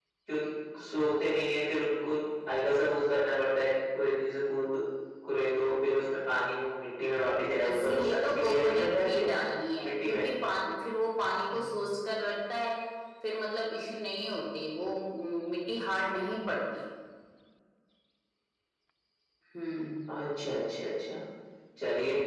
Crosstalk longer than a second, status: present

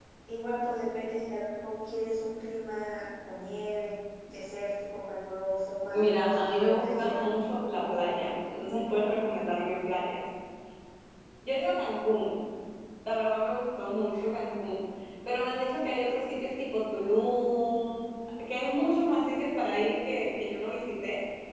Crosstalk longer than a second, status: present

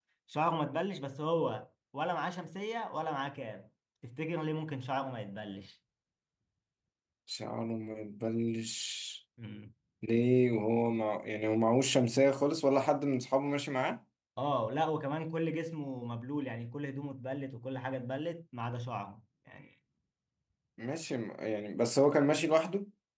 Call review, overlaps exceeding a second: none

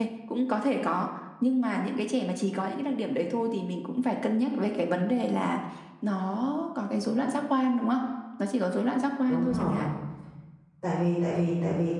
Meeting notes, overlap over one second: none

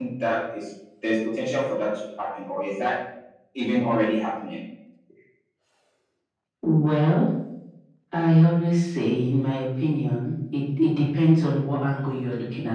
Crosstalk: none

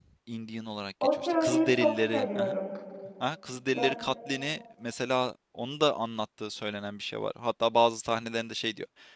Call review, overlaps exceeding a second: present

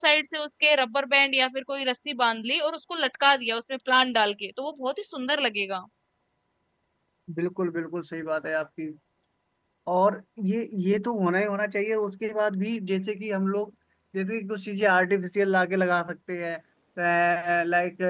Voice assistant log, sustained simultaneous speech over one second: none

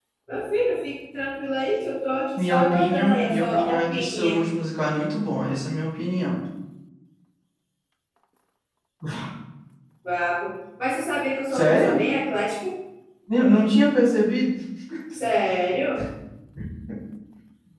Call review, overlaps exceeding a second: present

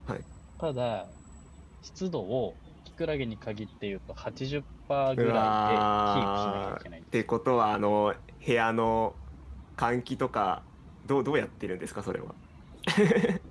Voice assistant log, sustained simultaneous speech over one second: present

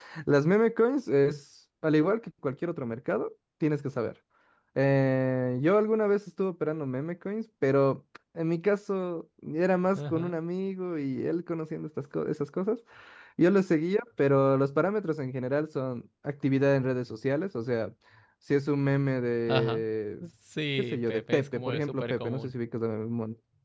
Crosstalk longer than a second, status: present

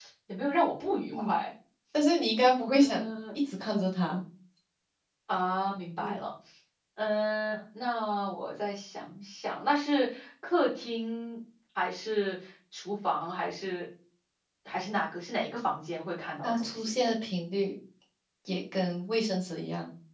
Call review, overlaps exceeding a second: none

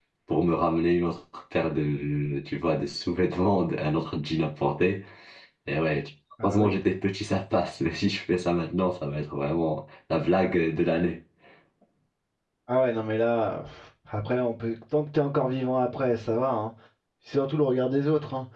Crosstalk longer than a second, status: none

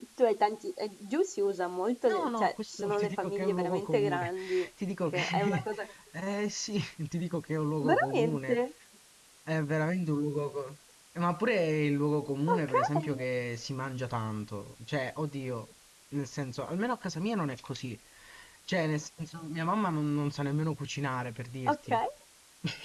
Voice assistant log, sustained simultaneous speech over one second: present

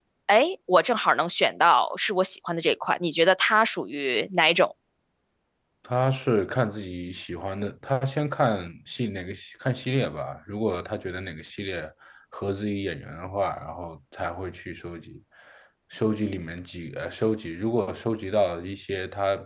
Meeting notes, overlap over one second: none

